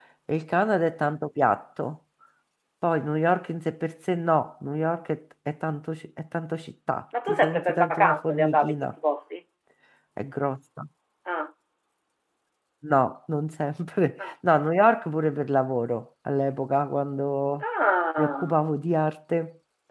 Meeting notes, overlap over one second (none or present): present